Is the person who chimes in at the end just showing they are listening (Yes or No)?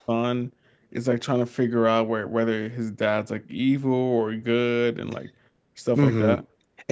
No